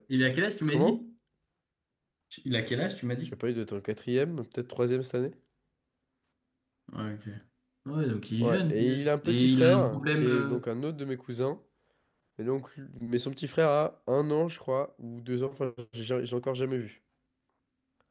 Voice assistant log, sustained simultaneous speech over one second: present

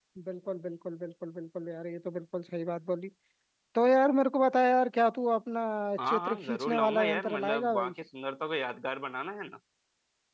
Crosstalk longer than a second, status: present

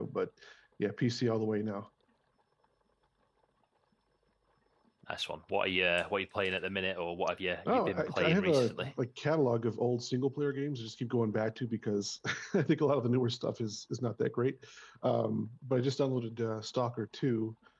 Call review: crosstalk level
present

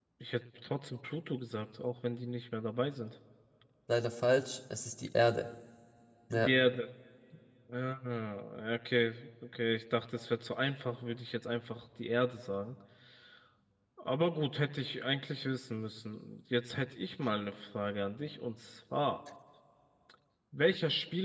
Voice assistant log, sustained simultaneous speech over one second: none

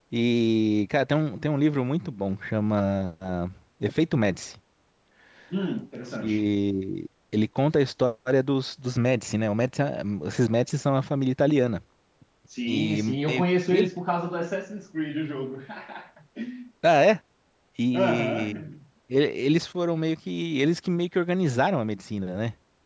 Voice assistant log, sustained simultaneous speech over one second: present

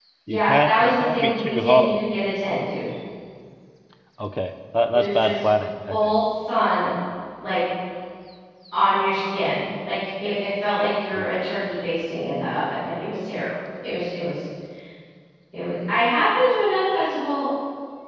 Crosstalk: present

